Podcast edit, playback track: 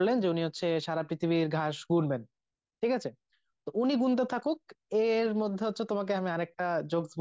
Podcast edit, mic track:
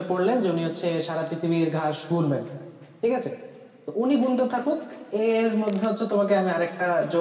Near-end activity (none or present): none